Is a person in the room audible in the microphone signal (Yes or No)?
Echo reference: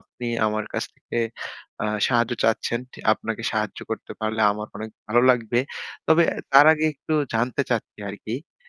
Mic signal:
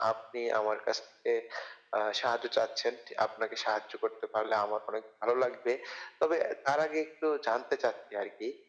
No